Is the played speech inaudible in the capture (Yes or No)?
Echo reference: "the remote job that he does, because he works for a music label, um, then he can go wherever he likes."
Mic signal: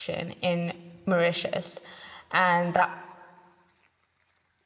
Yes